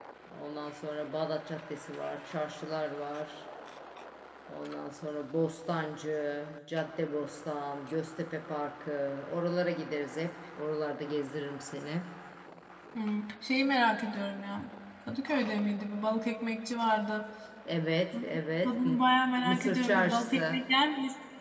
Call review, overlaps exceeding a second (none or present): present